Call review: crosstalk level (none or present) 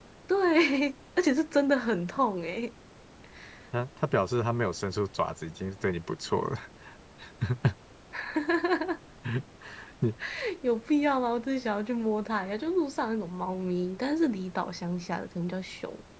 none